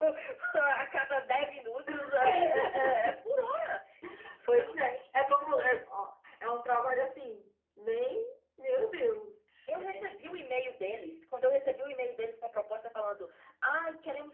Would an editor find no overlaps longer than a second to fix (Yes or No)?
No